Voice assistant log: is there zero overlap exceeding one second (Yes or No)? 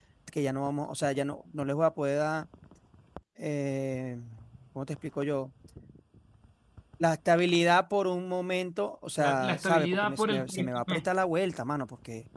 No